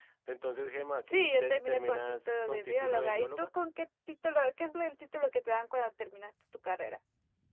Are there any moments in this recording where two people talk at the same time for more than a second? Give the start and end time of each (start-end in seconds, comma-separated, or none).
1.1-3.5